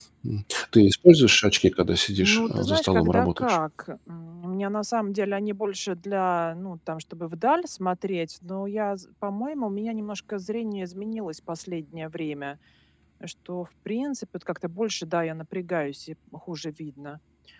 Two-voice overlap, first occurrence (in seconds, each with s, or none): 2.2 s